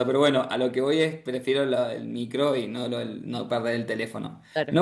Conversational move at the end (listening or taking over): listening